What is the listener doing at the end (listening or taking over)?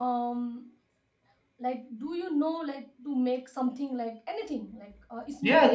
taking over